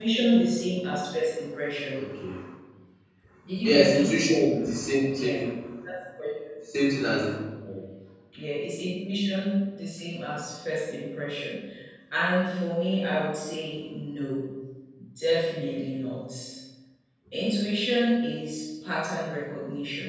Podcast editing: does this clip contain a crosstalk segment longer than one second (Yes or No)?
No